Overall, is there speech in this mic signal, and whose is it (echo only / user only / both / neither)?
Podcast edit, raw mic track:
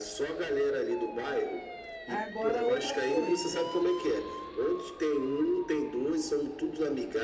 both